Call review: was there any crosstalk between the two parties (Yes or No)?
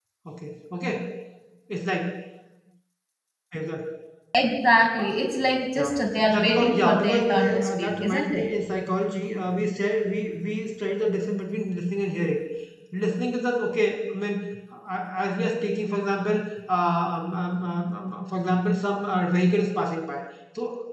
Yes